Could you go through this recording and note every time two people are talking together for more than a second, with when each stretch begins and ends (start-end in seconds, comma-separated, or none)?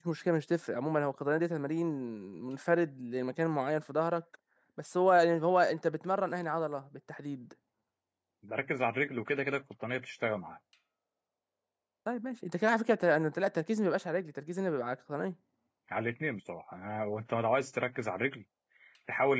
none